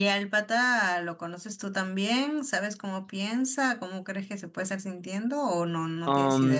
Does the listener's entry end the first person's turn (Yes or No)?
Yes